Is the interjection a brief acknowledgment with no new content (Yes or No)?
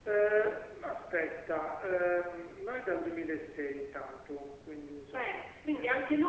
No